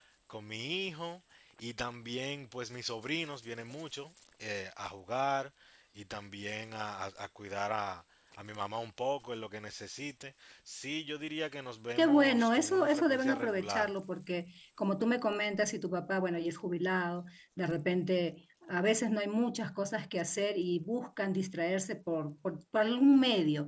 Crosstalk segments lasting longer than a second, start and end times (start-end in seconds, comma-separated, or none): 12.0-13.9